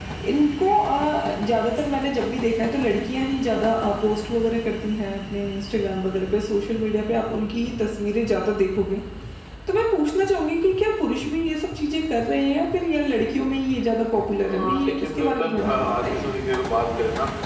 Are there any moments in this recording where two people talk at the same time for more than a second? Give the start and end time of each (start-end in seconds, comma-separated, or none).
14.5-16.3